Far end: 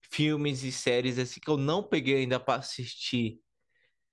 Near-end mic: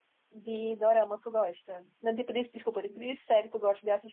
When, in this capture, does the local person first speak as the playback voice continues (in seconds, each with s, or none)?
0.3 s